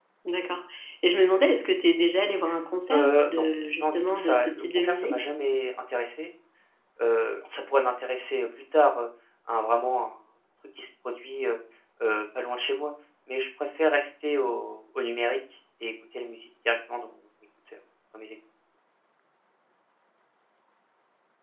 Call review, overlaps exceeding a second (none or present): present